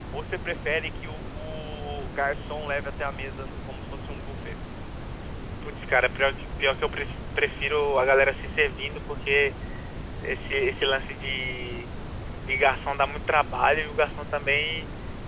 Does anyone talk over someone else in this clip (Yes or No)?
No